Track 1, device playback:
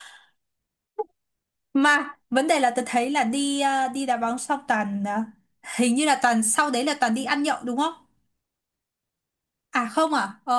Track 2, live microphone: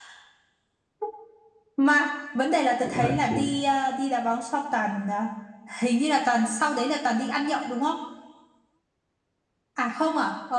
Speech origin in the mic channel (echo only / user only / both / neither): both